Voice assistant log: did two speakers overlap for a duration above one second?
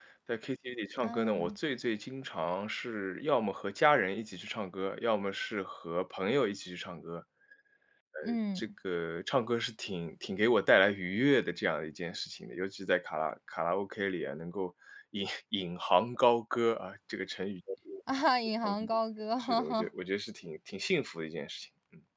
No

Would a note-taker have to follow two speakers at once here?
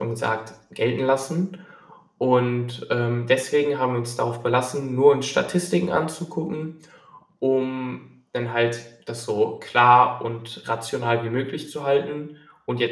No

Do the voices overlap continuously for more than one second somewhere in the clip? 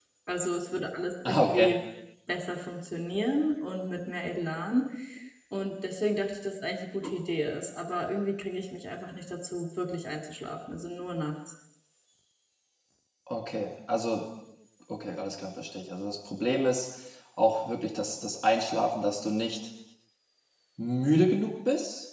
No

